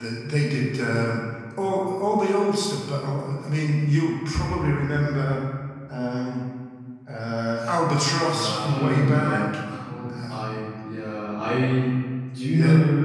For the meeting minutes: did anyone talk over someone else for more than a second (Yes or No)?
Yes